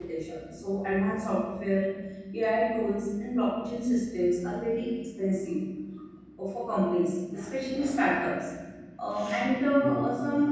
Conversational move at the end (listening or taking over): listening